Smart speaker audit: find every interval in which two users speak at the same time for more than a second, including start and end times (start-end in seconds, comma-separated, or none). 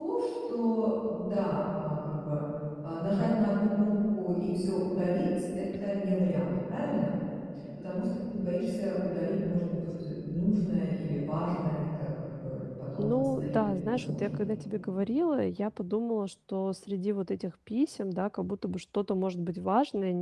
13.0-14.4